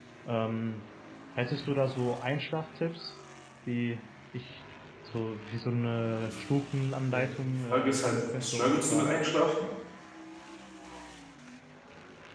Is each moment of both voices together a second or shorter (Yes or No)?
No